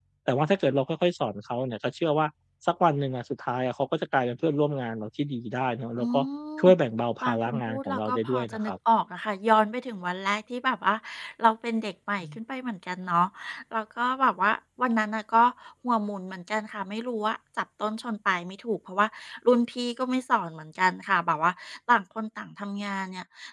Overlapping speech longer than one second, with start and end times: 7.2-8.7

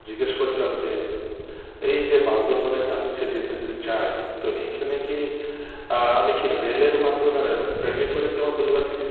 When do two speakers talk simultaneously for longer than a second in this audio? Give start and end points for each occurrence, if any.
none

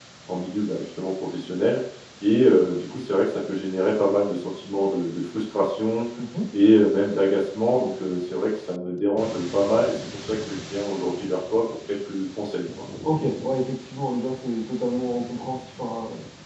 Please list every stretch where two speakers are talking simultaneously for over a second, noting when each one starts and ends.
none

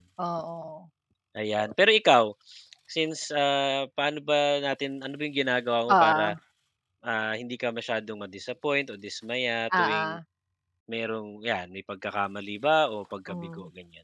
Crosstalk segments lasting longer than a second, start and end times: none

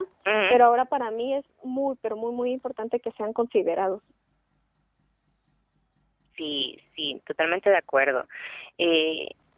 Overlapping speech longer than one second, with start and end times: none

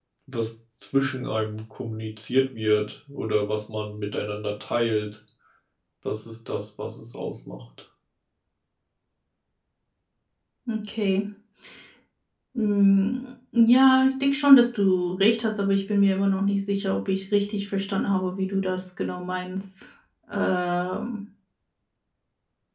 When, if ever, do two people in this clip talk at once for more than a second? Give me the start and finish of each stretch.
none

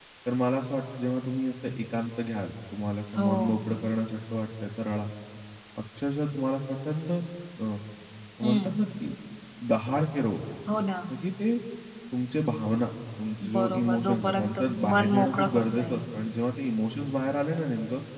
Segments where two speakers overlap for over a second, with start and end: 13.6-16.0

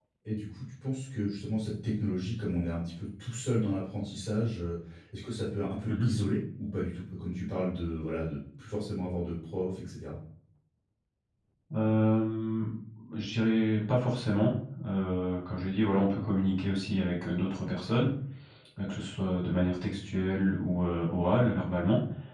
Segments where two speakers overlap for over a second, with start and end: none

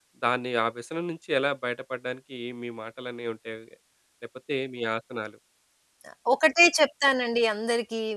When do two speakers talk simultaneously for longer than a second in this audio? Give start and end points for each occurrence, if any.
none

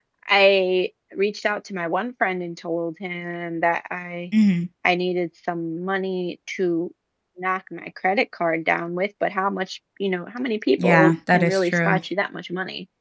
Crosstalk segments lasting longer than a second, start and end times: 10.8-12.0

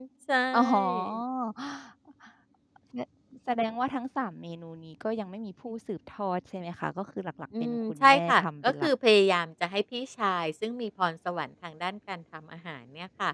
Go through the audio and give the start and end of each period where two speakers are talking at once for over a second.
7.6-8.9

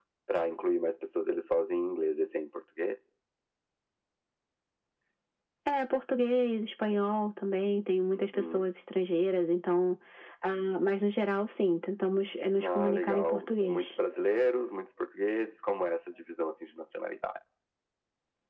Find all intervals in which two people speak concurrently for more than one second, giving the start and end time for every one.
12.6-13.9

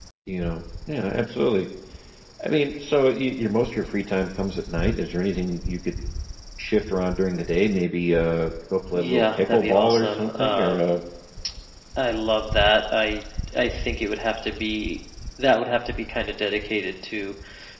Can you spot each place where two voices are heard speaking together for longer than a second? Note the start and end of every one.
8.9-11.0

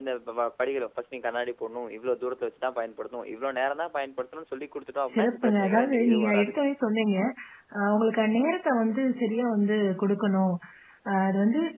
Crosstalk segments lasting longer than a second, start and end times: 5.1-6.6

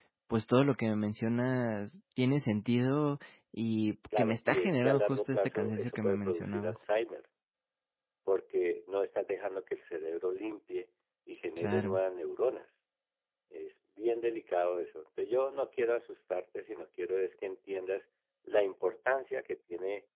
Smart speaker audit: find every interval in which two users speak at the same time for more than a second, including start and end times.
4.2-6.8

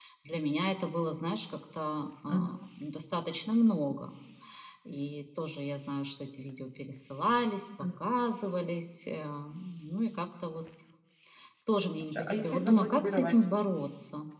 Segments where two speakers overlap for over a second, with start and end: 12.1-13.3

